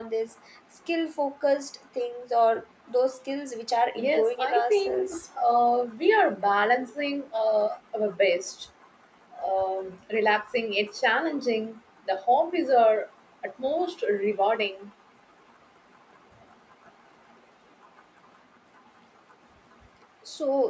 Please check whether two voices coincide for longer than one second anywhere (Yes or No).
Yes